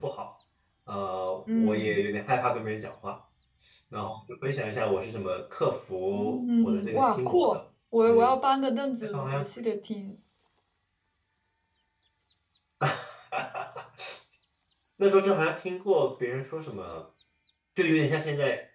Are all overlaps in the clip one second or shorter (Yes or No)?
No